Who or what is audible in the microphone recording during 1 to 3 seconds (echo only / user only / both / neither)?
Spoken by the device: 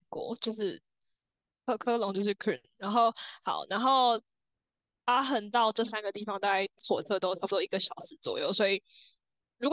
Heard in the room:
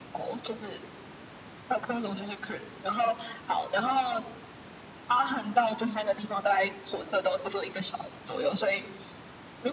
echo only